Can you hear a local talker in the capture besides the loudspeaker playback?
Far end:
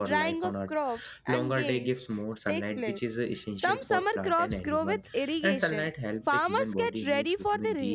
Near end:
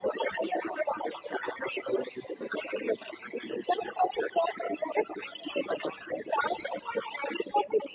No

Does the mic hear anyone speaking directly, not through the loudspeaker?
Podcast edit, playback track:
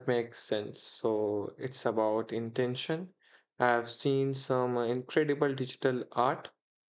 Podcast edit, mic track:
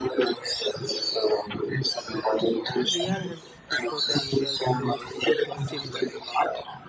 Yes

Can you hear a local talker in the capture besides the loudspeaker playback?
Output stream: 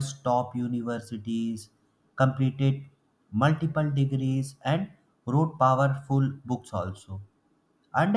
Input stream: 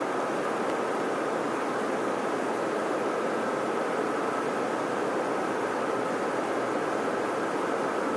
No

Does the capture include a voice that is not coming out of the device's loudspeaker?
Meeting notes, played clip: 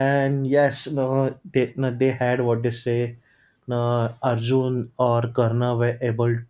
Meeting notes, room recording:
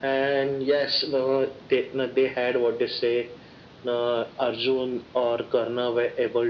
No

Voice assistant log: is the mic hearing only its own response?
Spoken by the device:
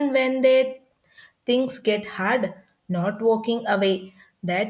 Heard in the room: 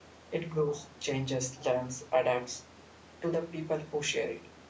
No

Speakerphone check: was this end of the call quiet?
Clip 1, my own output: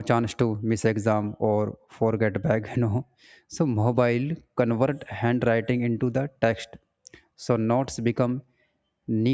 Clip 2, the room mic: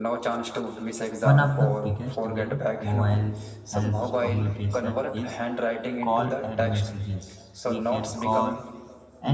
No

